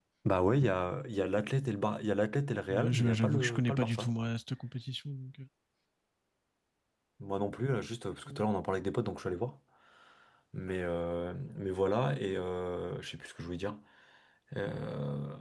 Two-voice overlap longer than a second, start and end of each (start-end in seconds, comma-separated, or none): 2.7-4.1